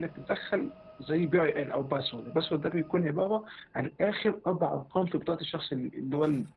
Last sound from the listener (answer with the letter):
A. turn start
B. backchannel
A